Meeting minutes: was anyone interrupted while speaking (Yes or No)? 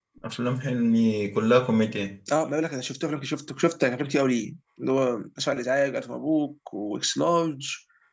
No